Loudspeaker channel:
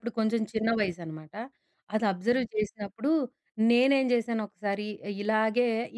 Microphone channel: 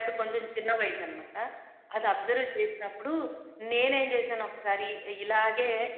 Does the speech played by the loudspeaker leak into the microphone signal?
Yes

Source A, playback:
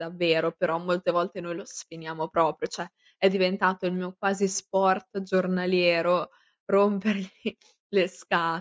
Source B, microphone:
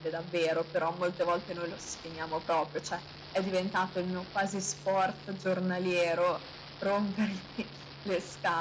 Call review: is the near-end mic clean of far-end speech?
No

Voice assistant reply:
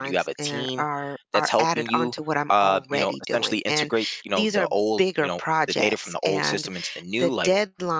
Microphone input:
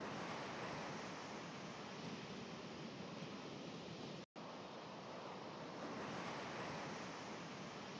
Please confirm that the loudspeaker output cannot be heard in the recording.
Yes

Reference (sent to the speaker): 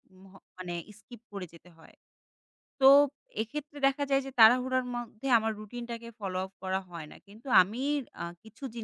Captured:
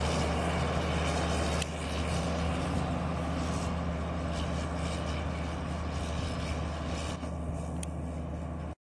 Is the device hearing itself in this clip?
No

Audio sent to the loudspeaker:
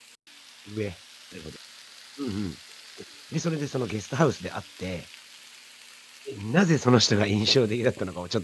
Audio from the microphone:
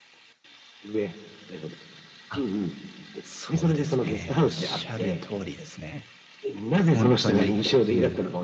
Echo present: Yes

